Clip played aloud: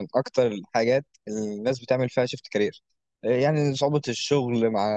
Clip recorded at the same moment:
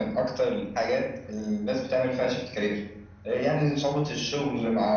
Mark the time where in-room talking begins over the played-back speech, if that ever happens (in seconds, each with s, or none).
none